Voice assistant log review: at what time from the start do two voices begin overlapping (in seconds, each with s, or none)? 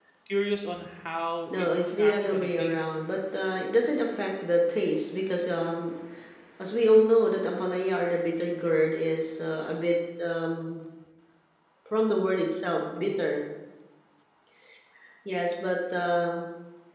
1.5 s